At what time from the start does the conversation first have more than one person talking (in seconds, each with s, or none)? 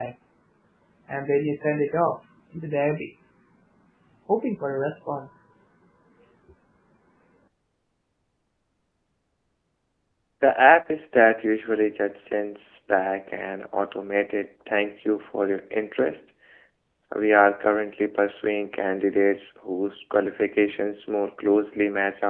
none